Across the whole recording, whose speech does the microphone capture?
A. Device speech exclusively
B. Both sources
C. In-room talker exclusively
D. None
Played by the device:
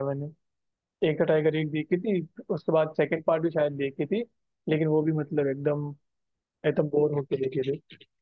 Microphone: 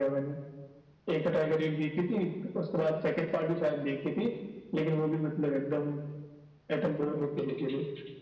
A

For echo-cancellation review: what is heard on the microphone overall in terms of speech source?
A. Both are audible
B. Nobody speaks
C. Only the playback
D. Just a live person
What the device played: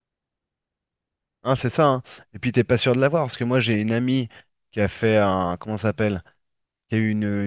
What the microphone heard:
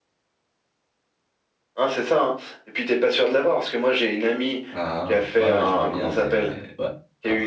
A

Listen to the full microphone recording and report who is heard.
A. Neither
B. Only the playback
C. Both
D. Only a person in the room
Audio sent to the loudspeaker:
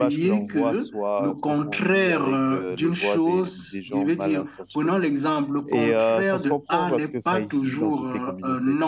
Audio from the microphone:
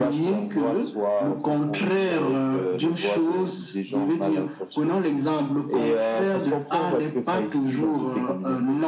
B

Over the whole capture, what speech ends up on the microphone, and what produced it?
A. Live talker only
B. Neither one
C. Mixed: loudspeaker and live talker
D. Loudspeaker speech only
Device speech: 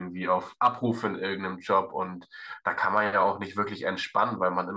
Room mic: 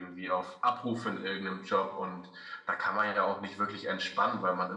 D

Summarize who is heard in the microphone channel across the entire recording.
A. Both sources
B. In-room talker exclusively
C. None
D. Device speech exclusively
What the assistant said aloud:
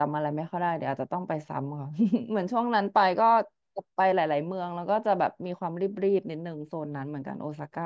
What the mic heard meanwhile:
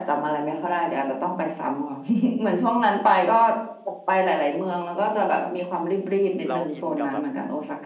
A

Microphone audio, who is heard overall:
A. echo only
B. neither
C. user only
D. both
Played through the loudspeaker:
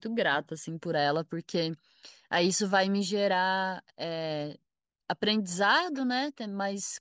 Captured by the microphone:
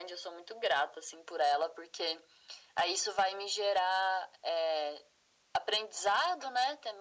A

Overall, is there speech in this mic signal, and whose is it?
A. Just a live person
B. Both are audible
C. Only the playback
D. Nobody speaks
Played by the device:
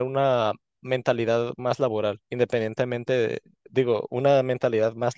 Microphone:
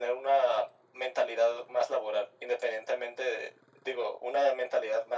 C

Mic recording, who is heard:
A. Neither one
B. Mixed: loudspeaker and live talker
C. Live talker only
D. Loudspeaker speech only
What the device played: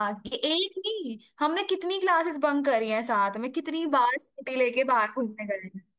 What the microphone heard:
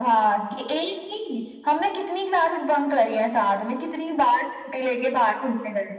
D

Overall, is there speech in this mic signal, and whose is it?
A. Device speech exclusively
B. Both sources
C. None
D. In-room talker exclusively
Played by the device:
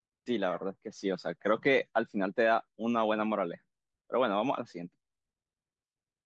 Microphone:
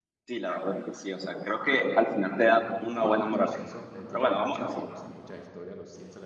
B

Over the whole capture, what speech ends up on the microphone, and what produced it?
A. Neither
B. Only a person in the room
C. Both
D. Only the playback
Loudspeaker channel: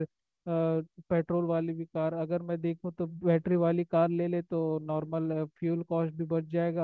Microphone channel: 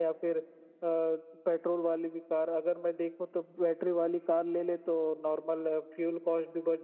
D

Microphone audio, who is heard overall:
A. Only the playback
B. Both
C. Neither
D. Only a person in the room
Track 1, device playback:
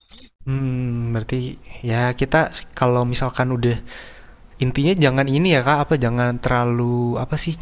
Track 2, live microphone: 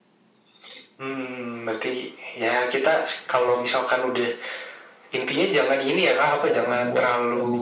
B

